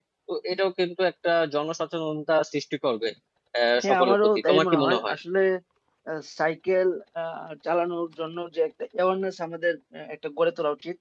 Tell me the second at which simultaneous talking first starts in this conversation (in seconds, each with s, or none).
3.8 s